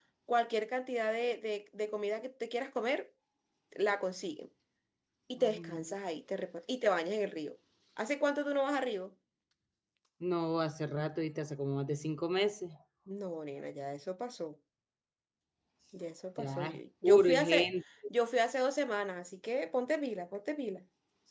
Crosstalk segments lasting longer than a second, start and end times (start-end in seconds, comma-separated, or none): 16.4-17.7